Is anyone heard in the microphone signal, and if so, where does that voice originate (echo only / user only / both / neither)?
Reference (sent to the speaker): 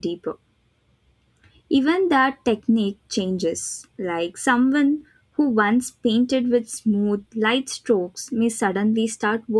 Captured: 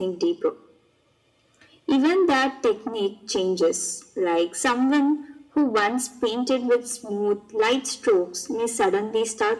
echo only